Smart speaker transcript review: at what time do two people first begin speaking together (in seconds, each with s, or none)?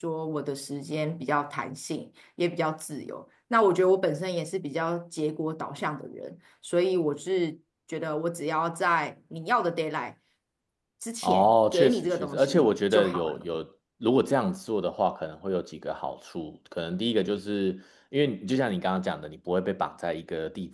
11.2 s